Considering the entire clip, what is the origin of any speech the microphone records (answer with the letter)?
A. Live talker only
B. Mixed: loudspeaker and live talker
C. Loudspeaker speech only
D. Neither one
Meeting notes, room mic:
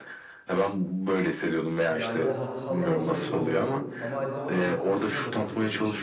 B